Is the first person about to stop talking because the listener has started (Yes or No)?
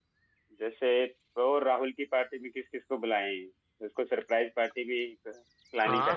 Yes